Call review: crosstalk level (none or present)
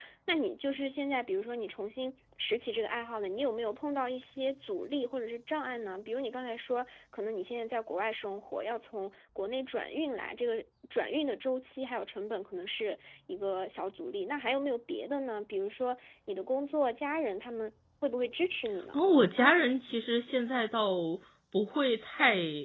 none